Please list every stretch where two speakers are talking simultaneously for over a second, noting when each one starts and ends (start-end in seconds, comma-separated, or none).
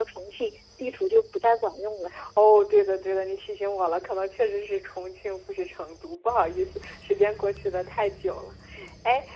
none